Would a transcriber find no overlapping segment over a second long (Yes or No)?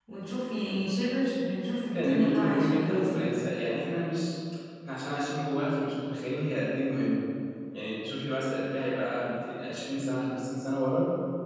No